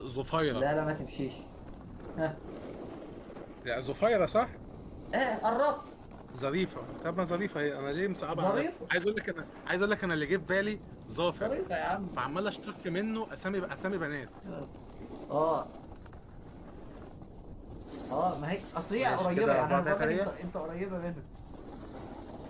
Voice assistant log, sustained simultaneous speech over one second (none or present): present